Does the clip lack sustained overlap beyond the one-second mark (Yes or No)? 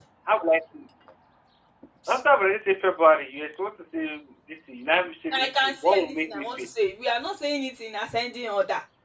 No